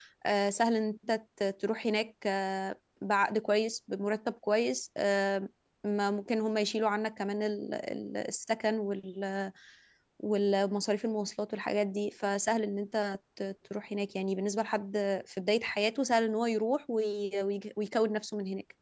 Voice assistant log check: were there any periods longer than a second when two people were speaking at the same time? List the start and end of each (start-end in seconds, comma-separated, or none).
none